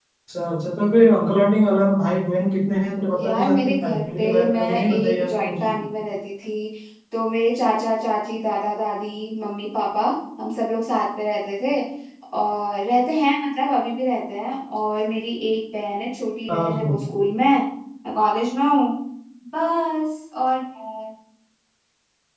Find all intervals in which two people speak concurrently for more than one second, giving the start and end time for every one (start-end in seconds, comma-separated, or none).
3.2-5.6